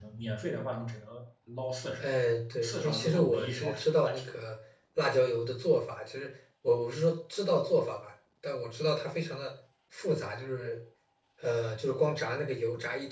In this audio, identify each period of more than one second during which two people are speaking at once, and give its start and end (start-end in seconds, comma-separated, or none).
2.6-4.3